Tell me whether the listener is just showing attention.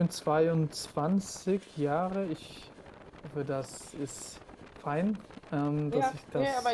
No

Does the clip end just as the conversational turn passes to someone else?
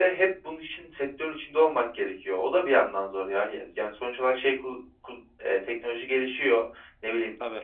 No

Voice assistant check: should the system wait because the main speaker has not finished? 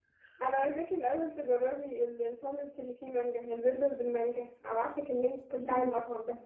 No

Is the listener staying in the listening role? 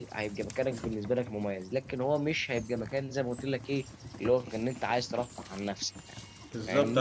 No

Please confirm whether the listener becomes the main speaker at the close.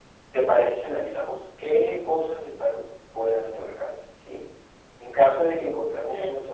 No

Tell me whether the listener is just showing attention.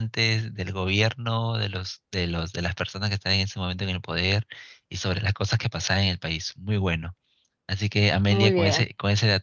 Yes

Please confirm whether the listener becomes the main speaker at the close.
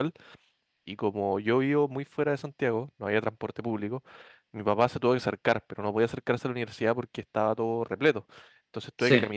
No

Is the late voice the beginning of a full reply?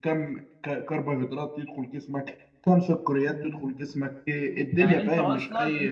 Yes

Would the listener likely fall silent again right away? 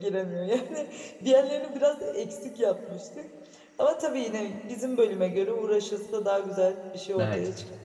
No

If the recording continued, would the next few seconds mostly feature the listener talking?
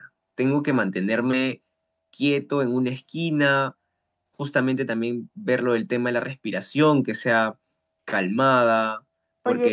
Yes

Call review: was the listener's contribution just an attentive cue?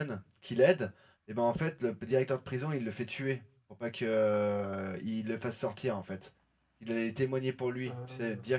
Yes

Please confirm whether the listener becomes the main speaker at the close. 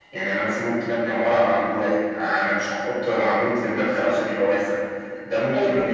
Yes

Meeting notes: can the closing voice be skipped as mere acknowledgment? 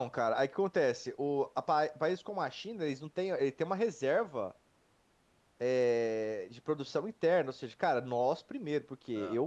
Yes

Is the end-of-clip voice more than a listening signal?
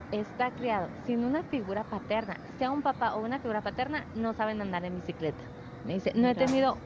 No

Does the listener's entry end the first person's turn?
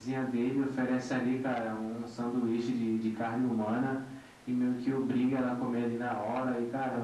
No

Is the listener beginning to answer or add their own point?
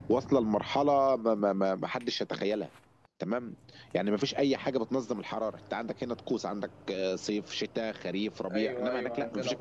Yes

